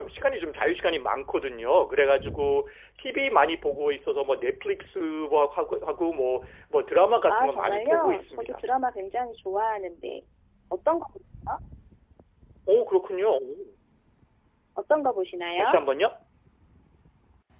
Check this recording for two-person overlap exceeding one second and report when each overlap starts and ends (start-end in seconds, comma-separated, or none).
7.3-8.6